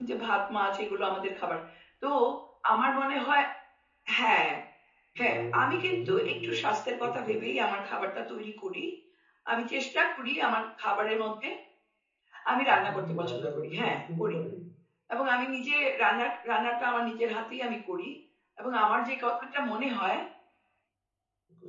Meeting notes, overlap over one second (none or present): present